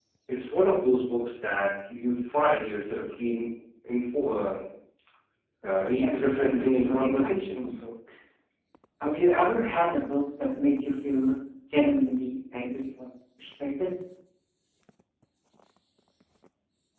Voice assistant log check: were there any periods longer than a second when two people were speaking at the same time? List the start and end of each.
6.0-7.8

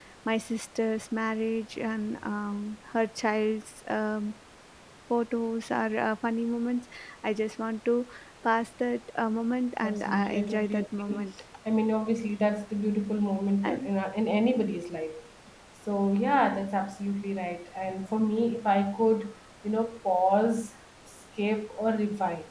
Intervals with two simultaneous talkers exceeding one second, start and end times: 9.8-11.3

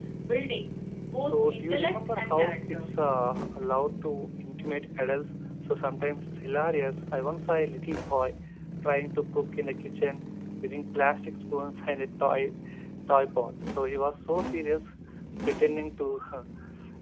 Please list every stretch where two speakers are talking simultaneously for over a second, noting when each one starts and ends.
1.2-2.9

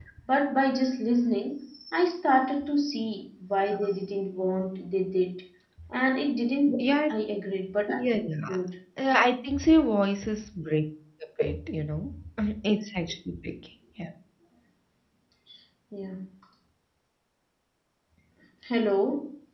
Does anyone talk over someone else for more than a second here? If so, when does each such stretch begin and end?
none

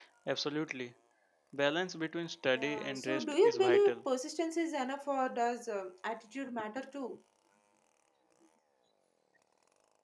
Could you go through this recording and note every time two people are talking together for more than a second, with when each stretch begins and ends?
2.5-4.0

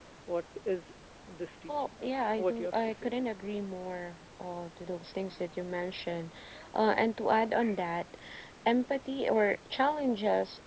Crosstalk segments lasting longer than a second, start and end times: 1.7-3.1

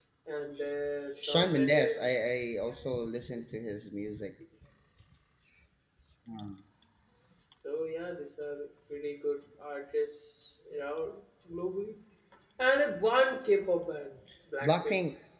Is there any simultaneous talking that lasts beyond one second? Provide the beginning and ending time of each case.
1.2-2.7

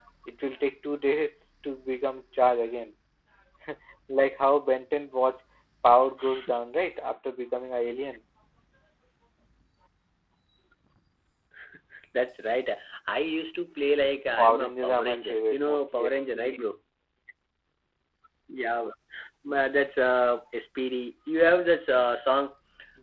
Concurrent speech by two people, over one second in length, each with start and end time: 14.4-16.7

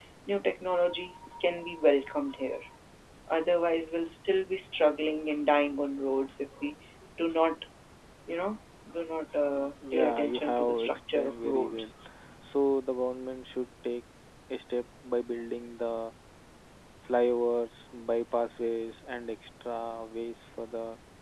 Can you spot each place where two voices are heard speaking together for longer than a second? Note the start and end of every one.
9.9-11.9

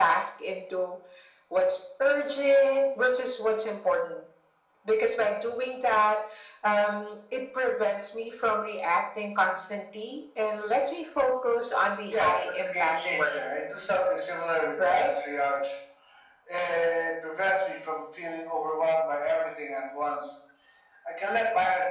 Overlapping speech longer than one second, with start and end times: 12.1-13.4

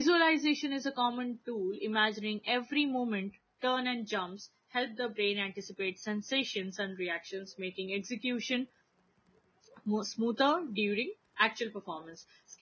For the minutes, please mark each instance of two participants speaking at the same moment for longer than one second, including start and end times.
none

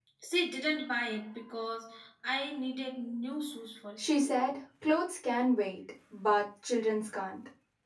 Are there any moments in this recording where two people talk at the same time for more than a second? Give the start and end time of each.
none

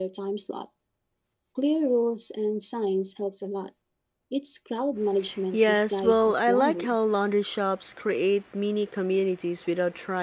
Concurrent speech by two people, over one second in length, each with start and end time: 5.5-7.0

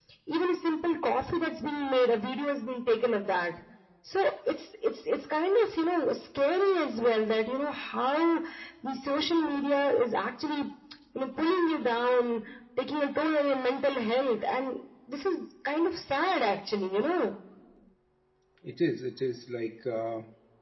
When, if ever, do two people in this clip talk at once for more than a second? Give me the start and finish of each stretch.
none

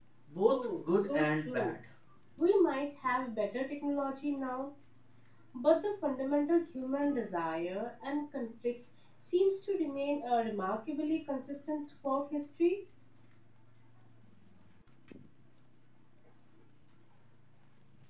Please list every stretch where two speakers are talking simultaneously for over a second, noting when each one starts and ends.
0.5-1.7

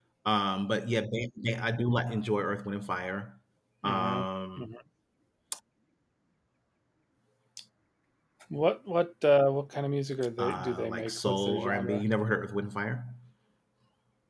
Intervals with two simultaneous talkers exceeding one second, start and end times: 10.4-12.0

